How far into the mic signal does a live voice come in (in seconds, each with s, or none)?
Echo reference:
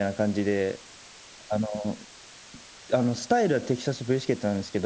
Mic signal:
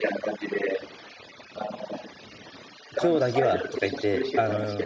3.0 s